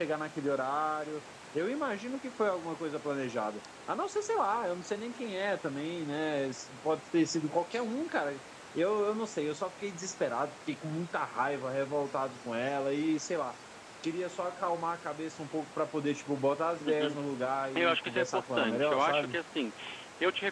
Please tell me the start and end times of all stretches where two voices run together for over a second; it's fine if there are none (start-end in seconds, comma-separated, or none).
17.8-19.4